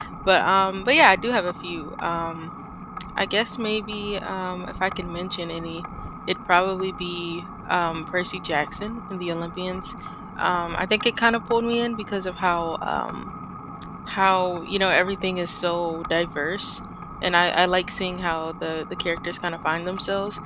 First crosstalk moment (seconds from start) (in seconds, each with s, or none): none